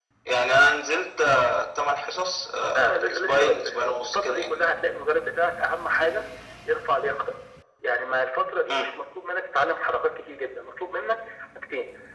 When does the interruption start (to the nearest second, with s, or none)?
3 s